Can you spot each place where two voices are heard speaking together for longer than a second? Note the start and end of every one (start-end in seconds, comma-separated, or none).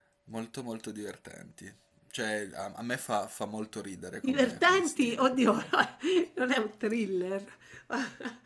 4.2-5.5